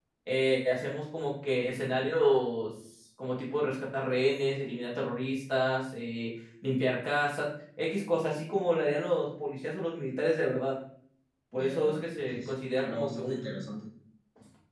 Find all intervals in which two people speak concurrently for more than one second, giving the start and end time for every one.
11.5-13.6

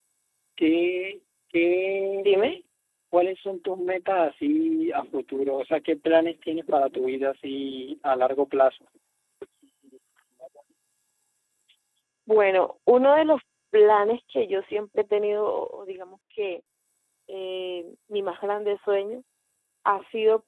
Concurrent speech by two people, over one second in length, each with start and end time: none

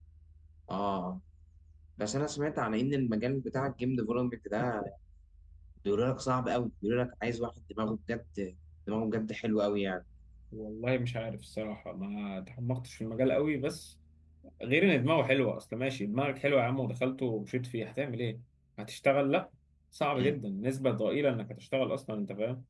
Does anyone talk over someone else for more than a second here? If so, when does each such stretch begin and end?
none

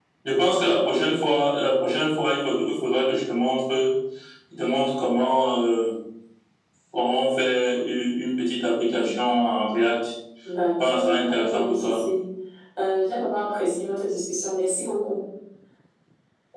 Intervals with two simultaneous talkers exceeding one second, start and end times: 10.8-12.0

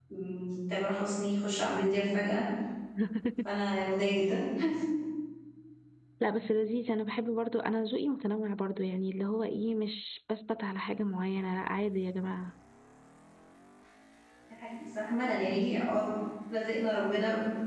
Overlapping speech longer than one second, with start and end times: none

